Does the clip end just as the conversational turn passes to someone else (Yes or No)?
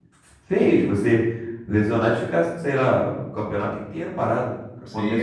Yes